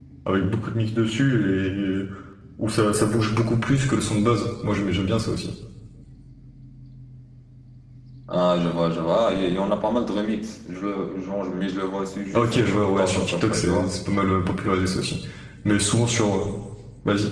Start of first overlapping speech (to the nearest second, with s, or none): 12 s